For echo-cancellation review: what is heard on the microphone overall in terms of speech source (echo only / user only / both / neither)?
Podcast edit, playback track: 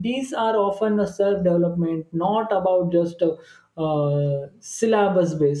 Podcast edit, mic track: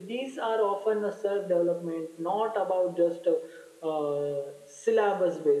echo only